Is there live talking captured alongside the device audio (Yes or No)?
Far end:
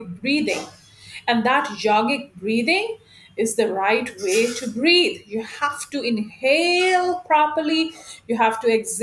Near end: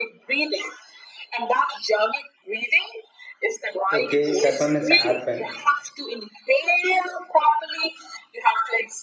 Yes